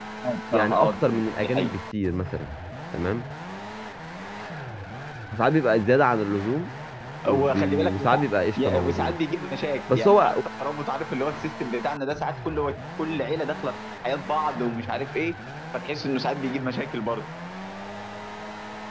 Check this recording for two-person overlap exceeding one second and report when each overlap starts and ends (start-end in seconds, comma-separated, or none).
0.5-1.8, 7.3-9.2